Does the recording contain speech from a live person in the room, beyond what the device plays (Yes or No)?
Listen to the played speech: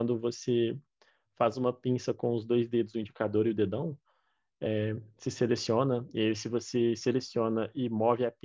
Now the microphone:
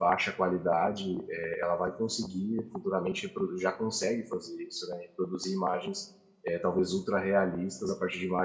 Yes